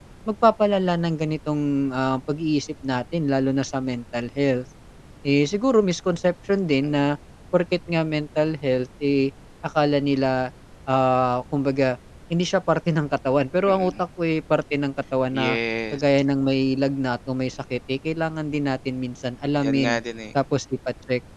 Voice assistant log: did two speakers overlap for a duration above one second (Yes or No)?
No